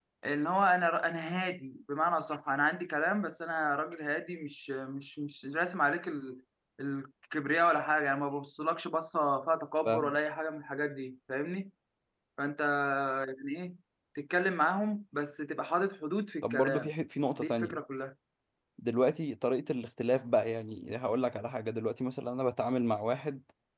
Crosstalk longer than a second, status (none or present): none